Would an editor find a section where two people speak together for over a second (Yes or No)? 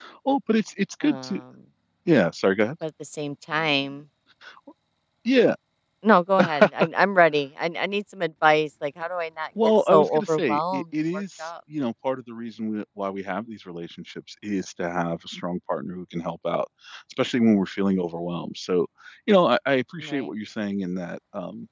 Yes